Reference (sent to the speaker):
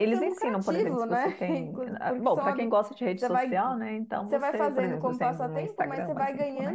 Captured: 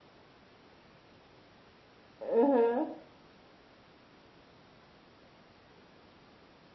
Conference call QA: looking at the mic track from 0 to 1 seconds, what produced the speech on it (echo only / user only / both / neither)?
neither